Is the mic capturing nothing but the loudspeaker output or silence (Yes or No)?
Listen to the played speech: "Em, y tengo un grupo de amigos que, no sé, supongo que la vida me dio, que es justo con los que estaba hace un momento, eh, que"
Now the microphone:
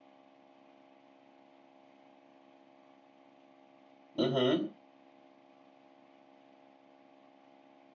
No